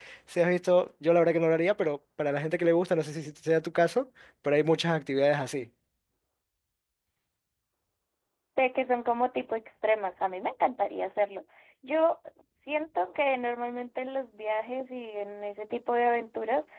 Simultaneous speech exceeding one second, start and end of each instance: none

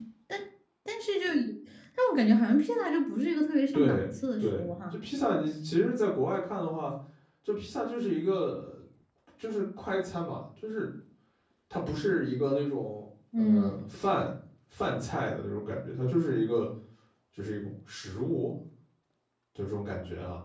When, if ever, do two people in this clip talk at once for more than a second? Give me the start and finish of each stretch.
3.7-5.0

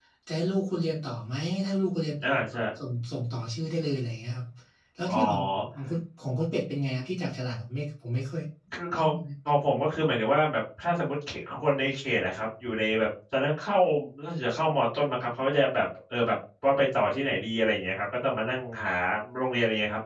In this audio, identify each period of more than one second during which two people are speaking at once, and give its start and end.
none

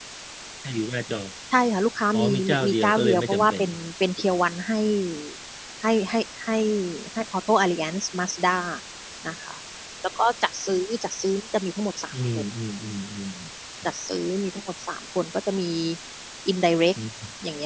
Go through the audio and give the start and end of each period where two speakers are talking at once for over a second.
2.1-3.6

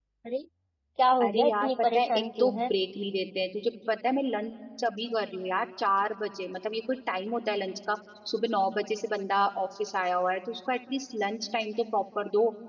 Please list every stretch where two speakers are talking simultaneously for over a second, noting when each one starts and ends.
1.2-2.6

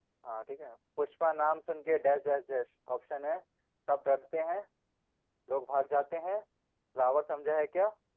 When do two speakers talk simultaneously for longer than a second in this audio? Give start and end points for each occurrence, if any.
none

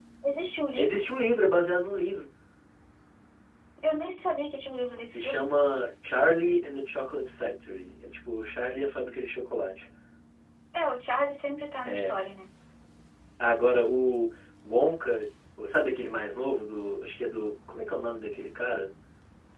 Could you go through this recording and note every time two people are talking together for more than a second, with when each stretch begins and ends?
none

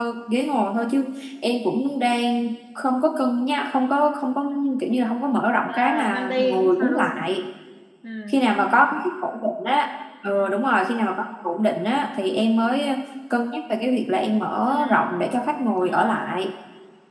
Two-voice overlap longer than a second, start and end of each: 5.7-7.2

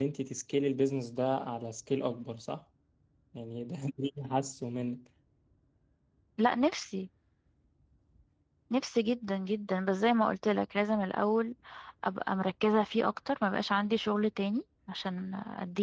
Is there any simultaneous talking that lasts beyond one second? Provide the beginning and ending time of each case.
none

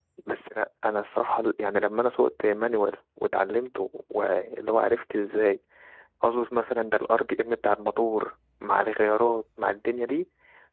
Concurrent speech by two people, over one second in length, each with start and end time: none

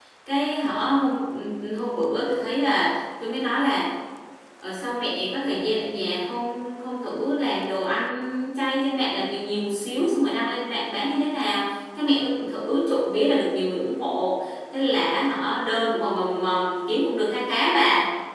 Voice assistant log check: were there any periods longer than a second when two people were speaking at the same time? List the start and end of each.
none

